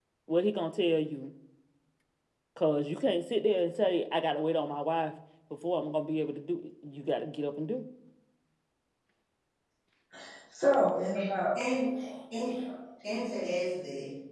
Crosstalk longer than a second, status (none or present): none